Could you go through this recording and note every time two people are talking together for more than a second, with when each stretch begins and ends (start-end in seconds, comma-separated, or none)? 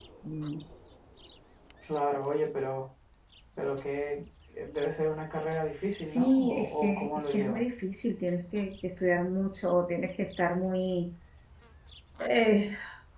5.7-7.6